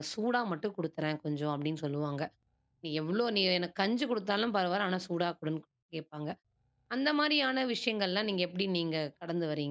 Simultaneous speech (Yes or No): No